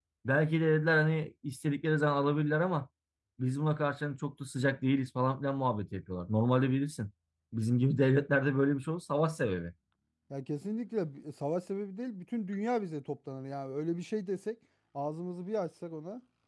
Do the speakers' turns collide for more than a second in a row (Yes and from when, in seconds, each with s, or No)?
No